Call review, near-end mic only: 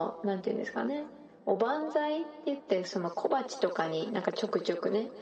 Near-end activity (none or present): none